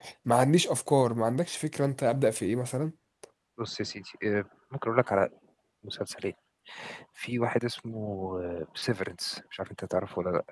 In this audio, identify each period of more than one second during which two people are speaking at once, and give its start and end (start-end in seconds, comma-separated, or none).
none